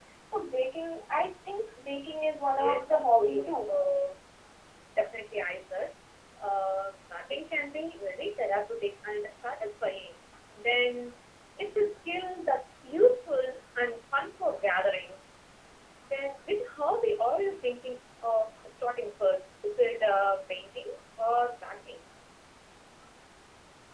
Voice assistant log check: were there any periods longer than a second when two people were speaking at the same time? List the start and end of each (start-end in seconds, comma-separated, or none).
2.5-3.8